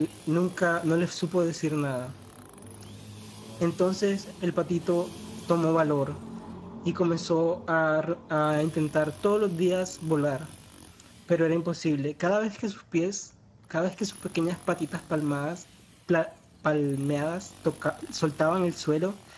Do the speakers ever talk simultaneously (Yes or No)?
No